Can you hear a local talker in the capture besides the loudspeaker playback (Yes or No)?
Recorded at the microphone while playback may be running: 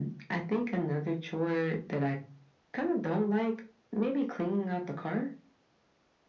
No